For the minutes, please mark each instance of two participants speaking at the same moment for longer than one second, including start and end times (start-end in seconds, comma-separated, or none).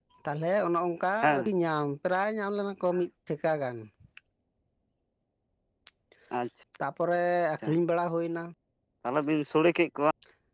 none